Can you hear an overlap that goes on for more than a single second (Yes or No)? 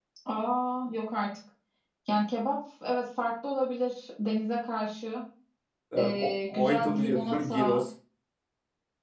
Yes